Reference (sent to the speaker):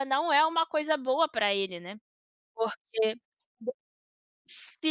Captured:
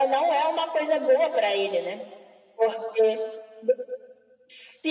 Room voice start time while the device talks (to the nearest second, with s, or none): none